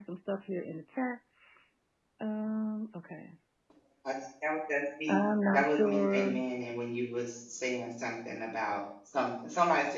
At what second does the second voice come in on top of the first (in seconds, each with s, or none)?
5.1 s